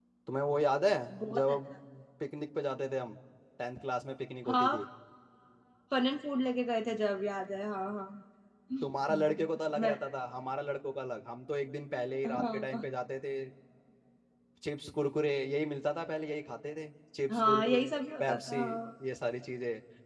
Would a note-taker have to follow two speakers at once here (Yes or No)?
Yes